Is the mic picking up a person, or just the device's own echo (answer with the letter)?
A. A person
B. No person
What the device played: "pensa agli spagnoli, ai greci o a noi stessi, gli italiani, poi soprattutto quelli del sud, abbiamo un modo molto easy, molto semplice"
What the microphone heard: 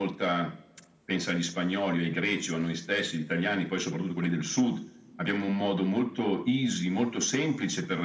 B